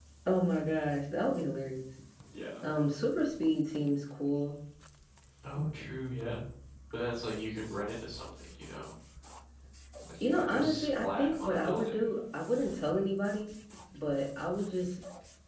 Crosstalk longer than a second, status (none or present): present